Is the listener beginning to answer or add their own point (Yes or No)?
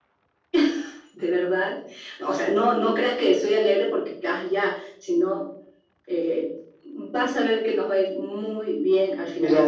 Yes